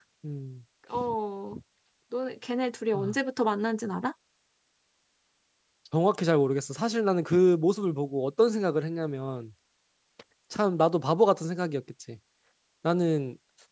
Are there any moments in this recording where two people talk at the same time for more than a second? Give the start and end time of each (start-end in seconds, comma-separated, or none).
none